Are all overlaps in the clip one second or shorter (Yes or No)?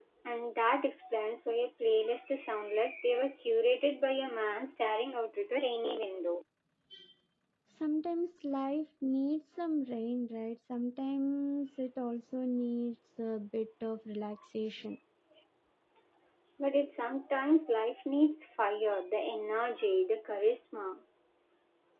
Yes